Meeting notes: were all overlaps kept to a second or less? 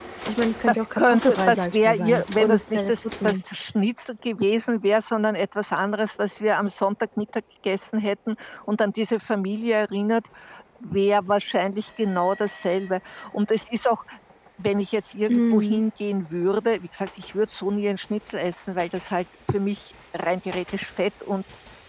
No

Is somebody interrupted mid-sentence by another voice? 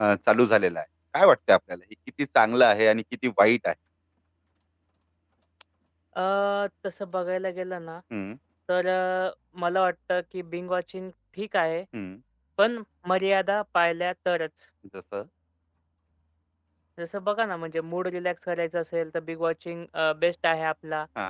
No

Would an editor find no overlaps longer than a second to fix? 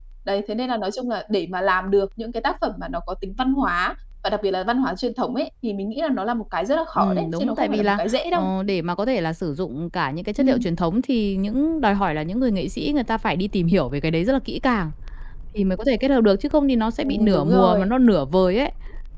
No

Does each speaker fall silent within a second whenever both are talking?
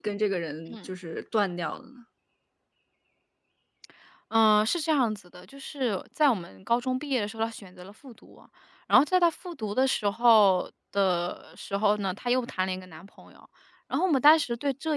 Yes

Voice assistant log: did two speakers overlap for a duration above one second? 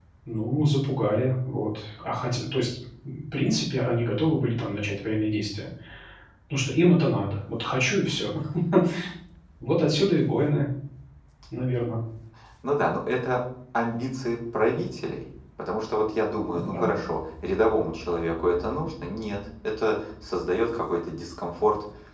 No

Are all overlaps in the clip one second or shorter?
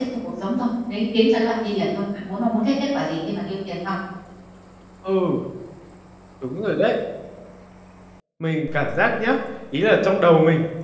Yes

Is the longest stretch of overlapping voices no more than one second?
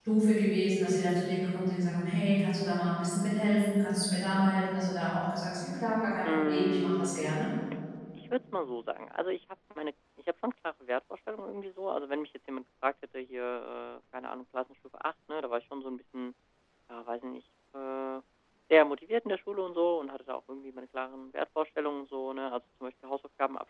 No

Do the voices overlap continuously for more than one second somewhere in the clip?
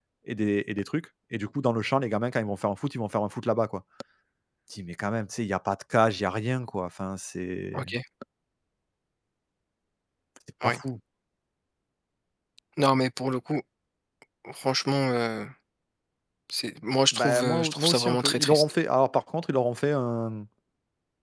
Yes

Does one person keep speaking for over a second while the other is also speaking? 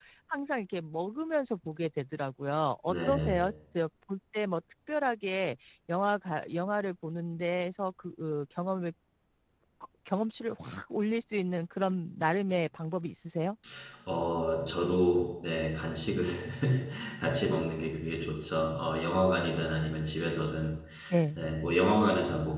No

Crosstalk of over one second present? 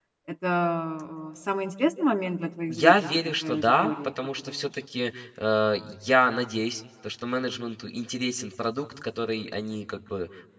Yes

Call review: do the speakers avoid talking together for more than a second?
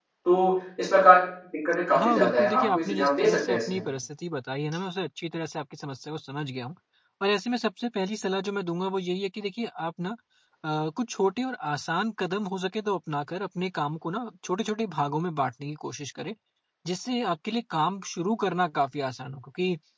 No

